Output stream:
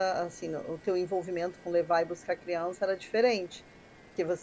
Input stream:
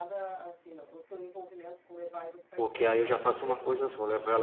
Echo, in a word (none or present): present